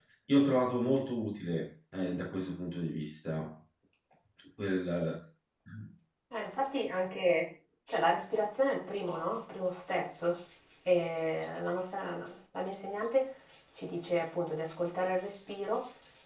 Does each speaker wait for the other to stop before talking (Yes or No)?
Yes